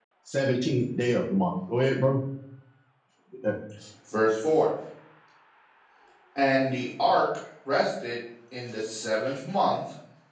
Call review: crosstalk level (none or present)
none